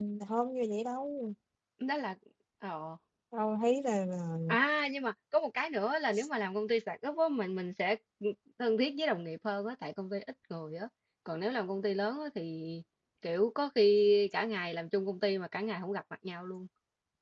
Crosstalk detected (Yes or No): No